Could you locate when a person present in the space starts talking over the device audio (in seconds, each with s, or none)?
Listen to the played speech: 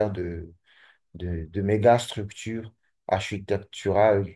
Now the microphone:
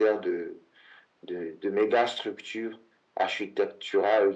none